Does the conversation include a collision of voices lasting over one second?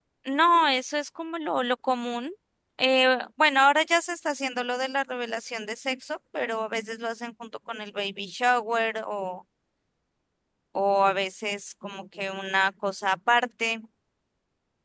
No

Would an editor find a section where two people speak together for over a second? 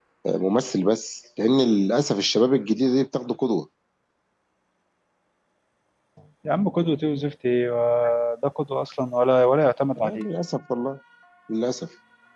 No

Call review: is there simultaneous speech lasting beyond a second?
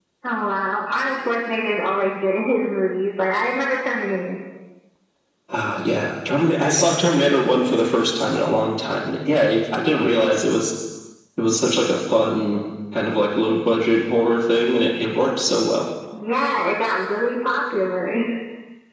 No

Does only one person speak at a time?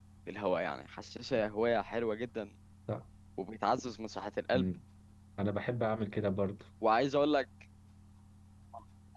Yes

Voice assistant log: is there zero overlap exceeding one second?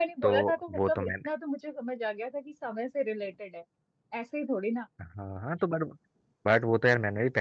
Yes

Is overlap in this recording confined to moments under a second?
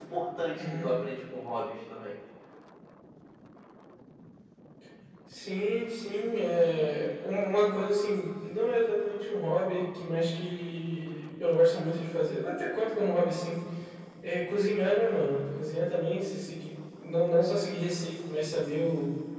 Yes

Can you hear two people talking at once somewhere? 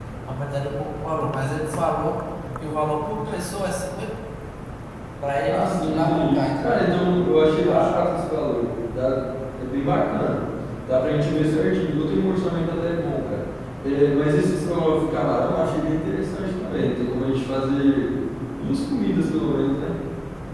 Yes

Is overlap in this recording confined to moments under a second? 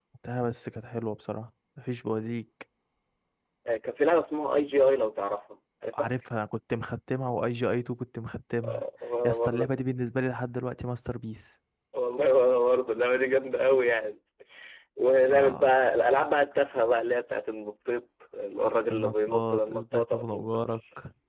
No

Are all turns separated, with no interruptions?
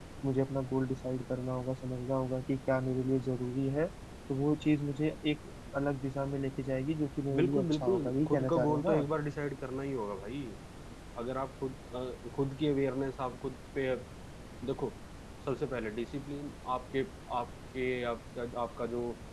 No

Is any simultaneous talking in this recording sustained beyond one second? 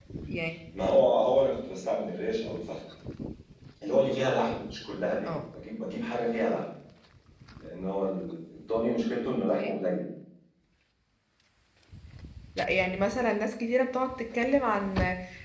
No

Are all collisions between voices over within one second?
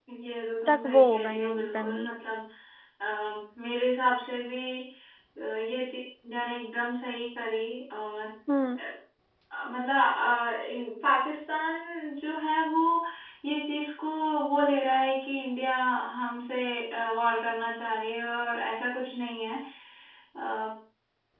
No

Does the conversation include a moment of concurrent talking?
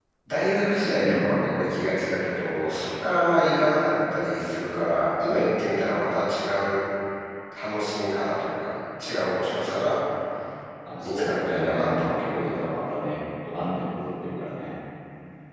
Yes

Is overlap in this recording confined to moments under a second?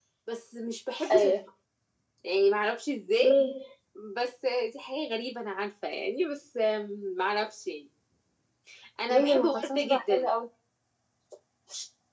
No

